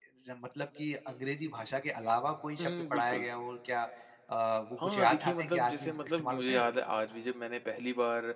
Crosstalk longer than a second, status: present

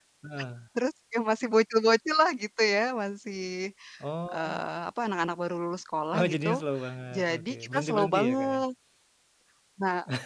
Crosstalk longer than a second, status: present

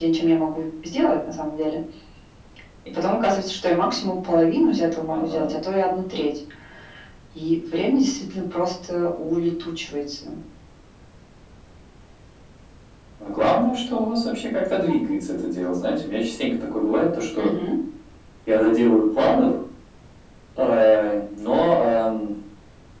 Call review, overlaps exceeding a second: none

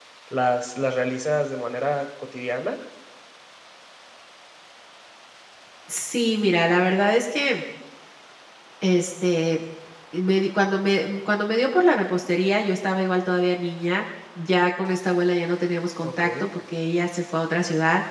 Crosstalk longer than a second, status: none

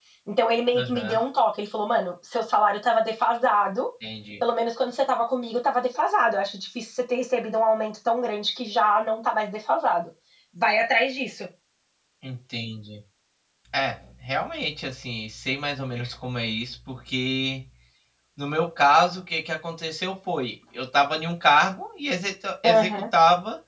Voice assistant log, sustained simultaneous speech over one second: none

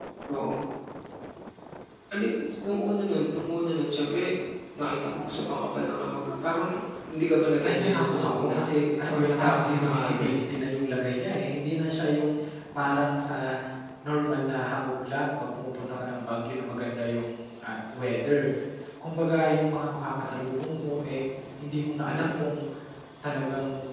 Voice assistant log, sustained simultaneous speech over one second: present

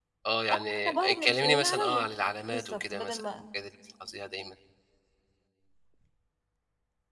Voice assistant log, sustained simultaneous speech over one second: present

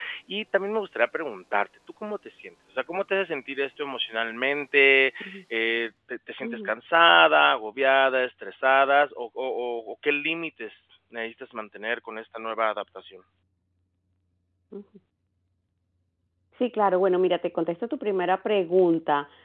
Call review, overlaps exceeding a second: none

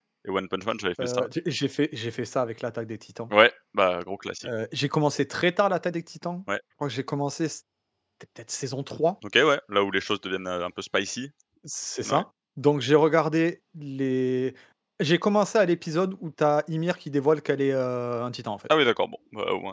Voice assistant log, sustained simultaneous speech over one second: none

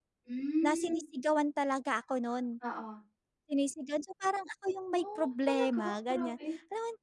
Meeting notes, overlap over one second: present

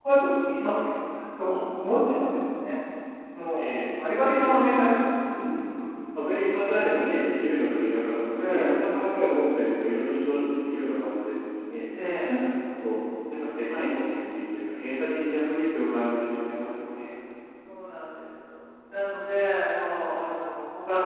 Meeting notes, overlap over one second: present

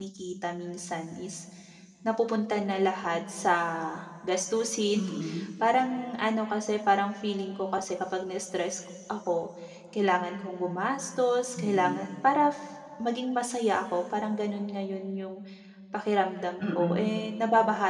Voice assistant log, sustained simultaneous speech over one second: none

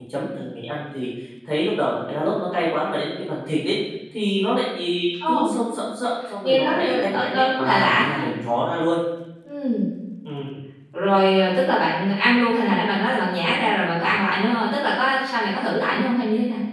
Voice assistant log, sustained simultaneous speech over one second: present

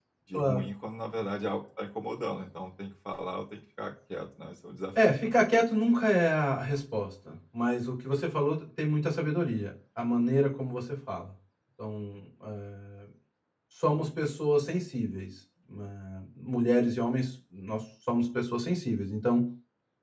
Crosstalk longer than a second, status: none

